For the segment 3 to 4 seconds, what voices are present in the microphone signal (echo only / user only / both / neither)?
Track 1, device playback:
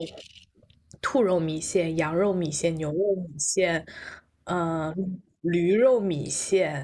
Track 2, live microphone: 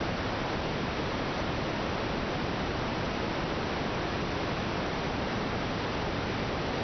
neither